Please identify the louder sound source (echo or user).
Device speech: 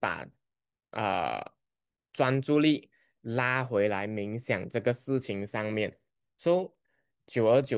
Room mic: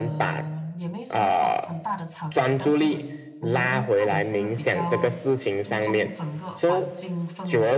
echo